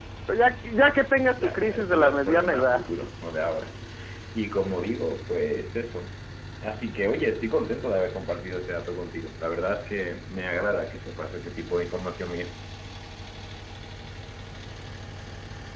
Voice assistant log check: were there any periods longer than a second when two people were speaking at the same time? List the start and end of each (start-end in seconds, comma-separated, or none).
1.3-2.9